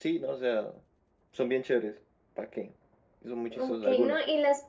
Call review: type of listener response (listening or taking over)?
taking over